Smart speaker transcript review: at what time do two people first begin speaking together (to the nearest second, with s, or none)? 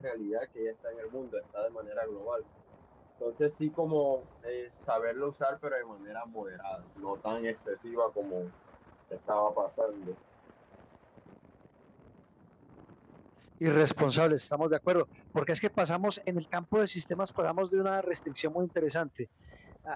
none